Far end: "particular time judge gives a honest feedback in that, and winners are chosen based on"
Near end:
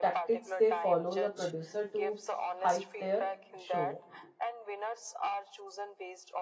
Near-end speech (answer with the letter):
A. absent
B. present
B